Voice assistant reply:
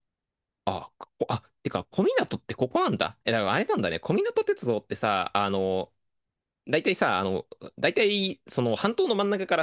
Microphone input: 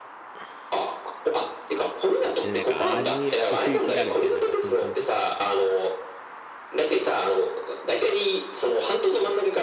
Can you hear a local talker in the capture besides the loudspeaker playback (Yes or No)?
Yes